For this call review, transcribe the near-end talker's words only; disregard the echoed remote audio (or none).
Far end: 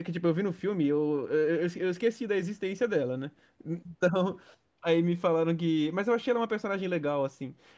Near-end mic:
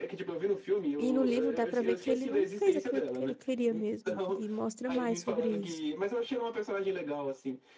E no livro dá pra ver que ele não fez aquilo porque ele queria mesmo, e mostra mais sobre isso.